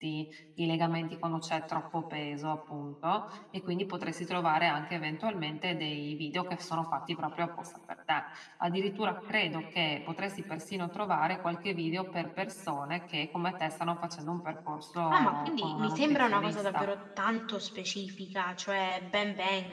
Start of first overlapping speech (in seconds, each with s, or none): 15.1 s